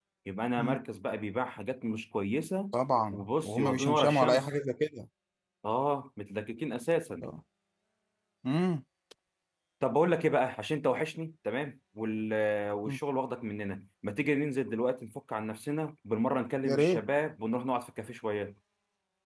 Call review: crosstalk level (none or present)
present